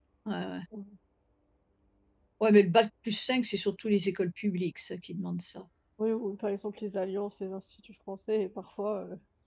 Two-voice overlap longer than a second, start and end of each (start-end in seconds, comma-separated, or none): none